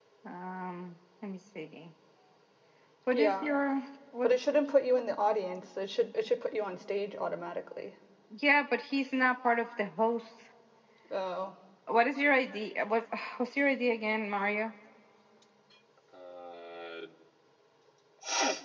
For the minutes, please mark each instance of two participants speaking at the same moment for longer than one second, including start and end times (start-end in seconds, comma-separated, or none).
none